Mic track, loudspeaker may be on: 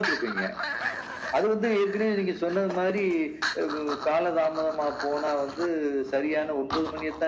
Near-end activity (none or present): none